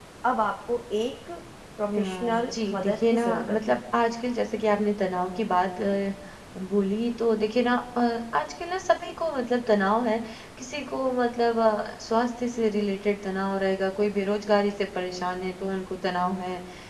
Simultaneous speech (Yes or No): Yes